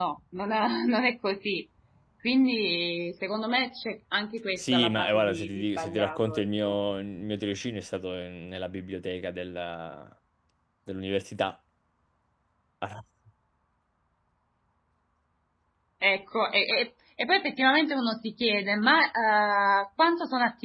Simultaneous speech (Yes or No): Yes